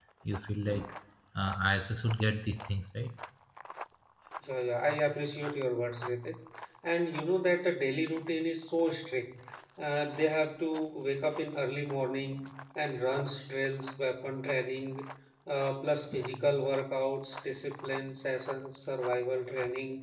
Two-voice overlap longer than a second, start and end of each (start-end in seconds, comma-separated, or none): none